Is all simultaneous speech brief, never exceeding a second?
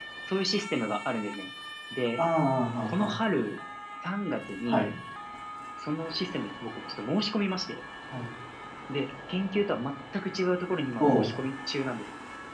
Yes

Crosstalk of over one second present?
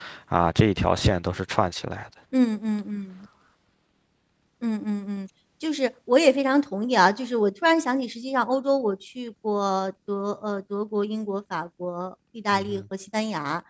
No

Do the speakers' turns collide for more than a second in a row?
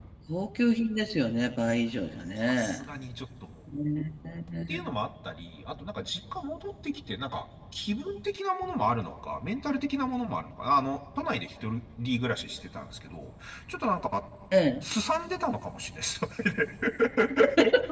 No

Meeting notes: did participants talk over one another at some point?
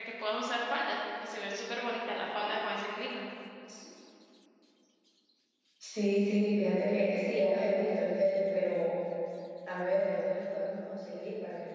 No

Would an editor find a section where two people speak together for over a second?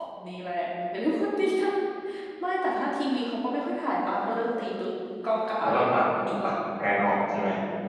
No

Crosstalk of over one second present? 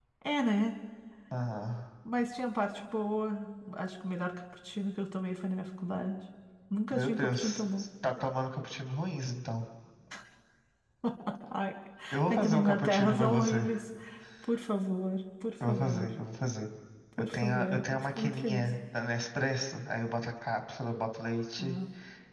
Yes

